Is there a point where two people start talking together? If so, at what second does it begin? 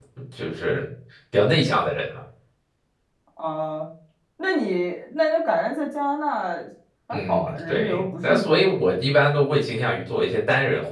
7.1 s

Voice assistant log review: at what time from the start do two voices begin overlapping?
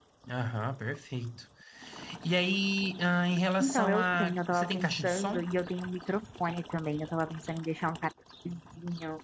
3.6 s

